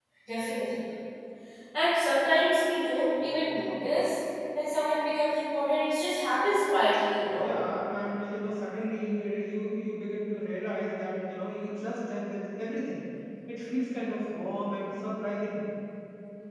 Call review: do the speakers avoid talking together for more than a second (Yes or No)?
Yes